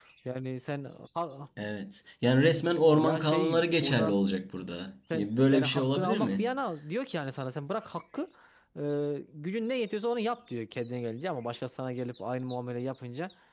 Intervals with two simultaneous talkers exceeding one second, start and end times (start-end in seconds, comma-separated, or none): 2.9-4.2, 5.1-6.5